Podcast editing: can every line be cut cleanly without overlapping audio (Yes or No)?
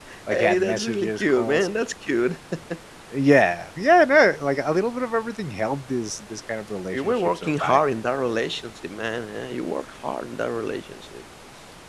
No